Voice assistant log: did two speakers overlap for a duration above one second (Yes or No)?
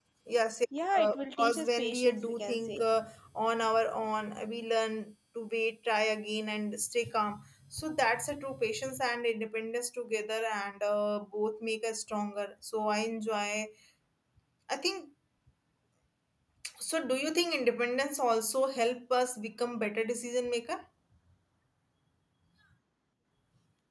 Yes